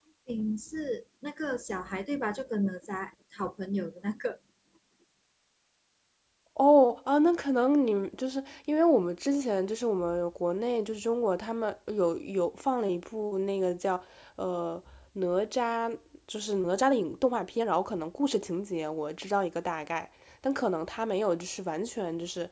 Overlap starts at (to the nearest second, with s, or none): none